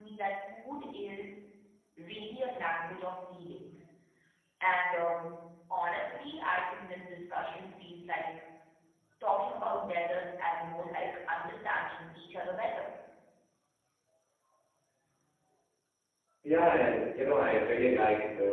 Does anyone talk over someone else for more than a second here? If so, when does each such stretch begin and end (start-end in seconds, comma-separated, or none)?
none